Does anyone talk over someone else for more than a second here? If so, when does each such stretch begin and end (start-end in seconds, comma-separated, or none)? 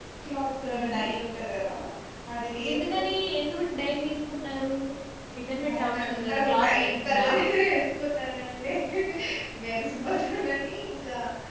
5.7-7.3